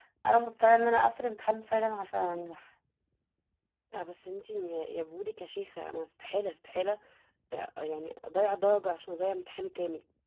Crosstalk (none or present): none